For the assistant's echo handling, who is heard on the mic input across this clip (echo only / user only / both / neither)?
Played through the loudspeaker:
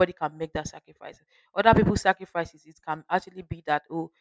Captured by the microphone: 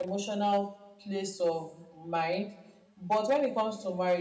user only